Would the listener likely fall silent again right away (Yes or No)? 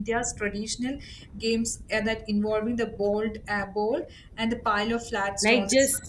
No